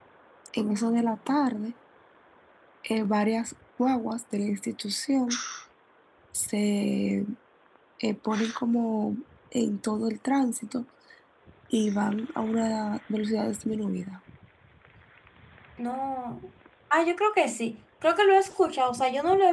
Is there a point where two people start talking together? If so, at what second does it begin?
none

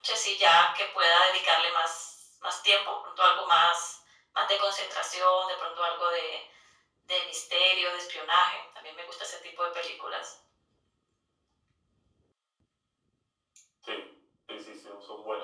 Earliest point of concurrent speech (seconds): none

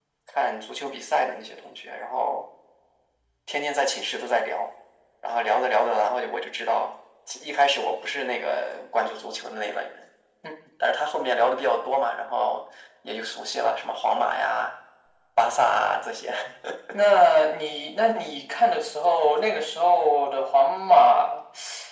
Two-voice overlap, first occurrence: none

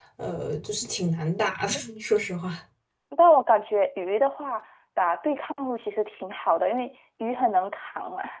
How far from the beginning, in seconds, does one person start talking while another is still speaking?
none

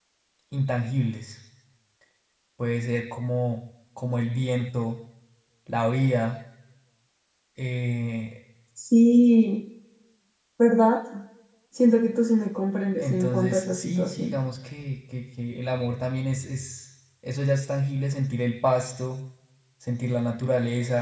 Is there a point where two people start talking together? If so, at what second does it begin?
13.0 s

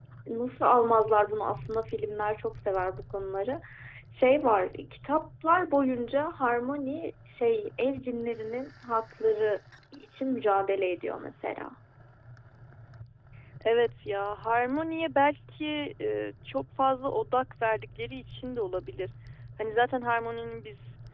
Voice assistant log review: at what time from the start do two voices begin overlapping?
none

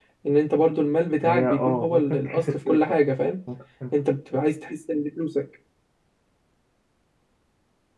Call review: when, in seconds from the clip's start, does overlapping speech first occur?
1.2 s

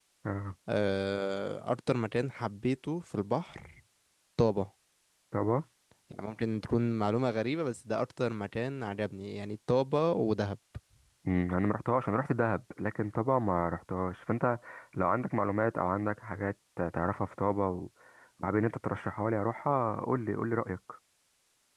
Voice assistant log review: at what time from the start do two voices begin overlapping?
none

